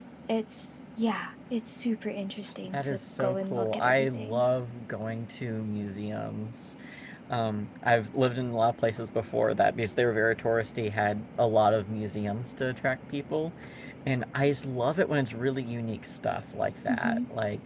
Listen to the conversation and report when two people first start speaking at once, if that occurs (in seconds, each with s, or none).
2.7 s